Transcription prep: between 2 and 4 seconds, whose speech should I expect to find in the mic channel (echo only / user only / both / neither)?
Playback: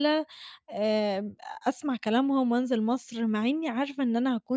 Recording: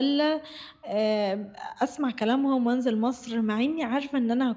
echo only